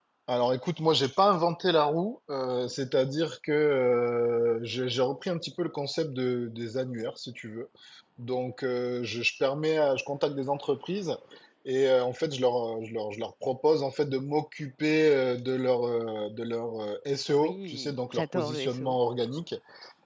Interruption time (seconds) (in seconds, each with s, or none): 17.3 s